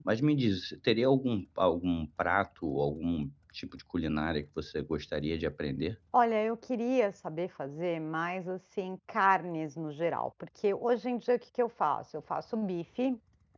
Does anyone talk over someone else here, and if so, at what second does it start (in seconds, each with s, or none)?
none